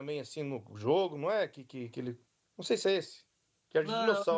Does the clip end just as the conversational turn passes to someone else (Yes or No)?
Yes